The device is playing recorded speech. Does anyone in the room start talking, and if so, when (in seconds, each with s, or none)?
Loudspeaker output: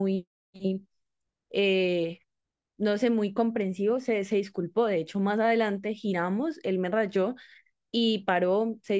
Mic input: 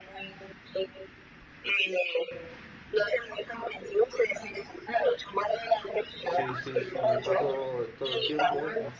6.3 s